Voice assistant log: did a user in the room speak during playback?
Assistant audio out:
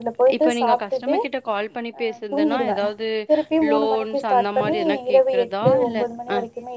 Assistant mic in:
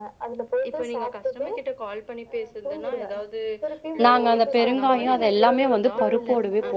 Yes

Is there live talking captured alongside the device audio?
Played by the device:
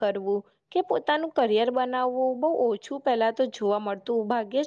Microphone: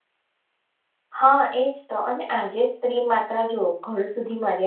Yes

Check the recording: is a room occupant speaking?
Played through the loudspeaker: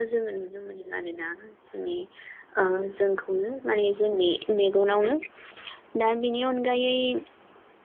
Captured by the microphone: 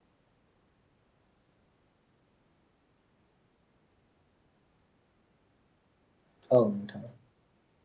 Yes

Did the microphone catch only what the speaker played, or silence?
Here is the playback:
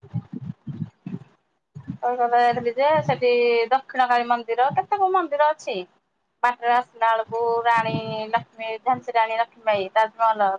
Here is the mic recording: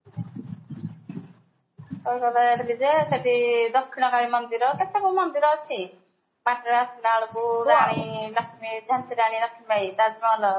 No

